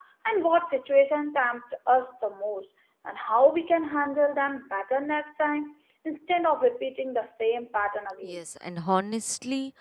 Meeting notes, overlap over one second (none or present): none